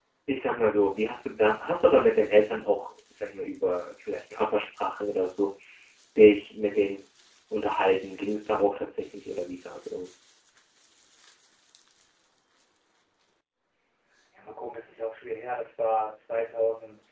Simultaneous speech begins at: none

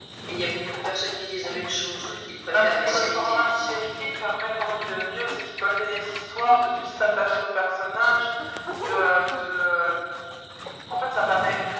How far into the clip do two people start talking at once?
2.5 s

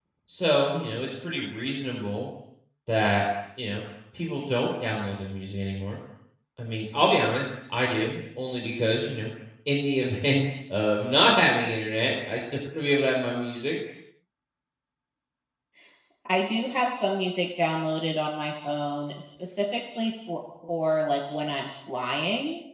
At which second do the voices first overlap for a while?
none

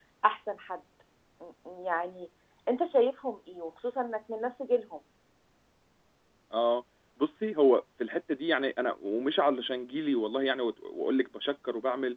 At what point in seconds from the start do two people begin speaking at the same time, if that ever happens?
none

